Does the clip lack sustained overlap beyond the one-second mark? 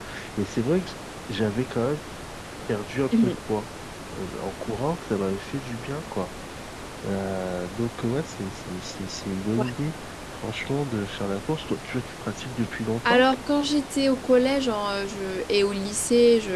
Yes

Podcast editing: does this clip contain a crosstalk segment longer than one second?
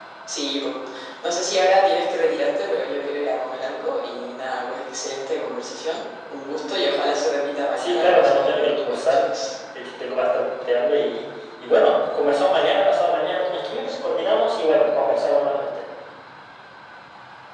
Yes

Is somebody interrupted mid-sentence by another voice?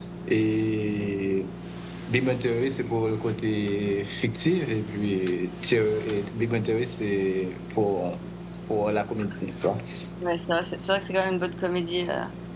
No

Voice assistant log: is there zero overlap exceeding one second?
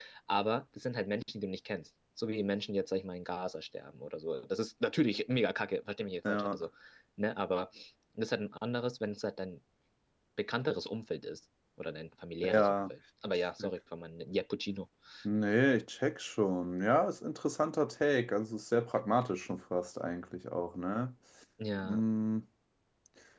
Yes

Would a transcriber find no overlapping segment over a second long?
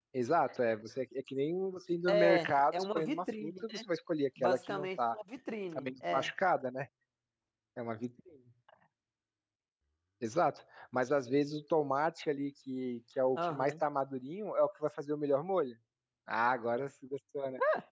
No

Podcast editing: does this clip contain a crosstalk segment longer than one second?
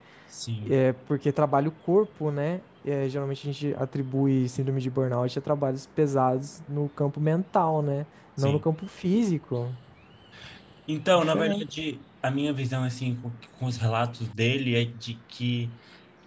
No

